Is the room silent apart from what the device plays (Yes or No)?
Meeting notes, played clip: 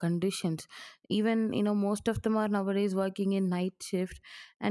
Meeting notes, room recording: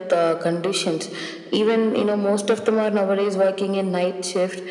Yes